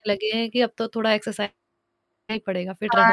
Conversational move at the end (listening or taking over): taking over